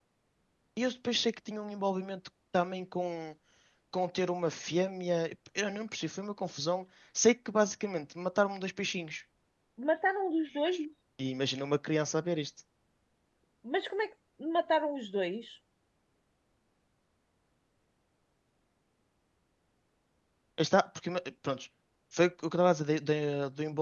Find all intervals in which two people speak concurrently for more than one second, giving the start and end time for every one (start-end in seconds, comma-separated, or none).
none